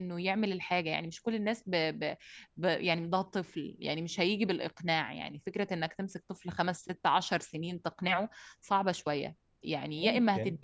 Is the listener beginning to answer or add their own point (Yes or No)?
No